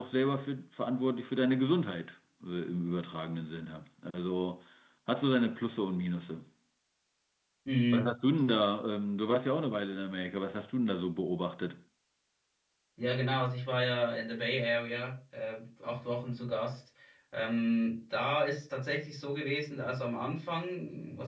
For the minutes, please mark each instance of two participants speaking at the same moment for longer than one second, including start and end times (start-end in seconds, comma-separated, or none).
none